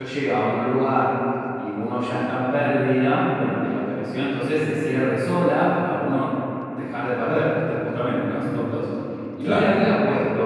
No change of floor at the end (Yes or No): Yes